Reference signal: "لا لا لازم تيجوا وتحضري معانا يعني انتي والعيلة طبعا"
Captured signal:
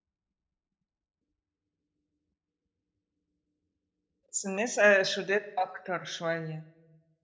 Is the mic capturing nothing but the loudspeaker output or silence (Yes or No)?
No